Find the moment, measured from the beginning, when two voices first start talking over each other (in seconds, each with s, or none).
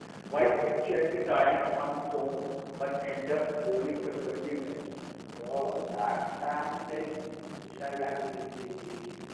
none